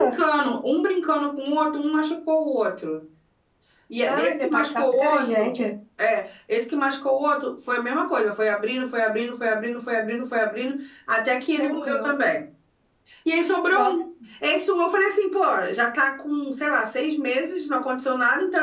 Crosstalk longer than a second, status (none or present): present